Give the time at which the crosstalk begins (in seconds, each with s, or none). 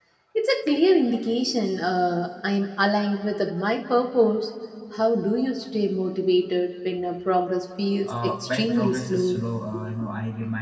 8.0 s